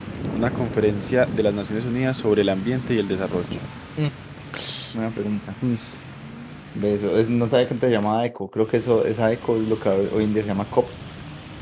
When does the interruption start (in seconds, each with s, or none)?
none